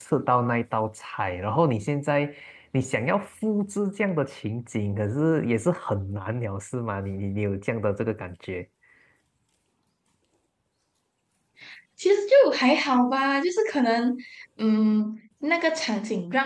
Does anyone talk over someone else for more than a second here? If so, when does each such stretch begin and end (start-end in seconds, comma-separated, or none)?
none